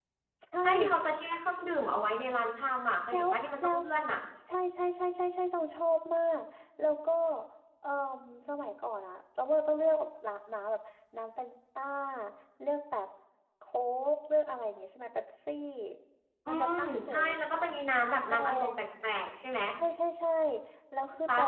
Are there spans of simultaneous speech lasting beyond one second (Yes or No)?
Yes